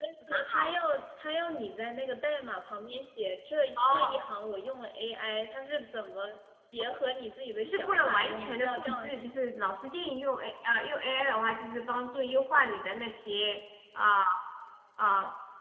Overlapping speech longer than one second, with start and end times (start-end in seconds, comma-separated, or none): 7.6-9.3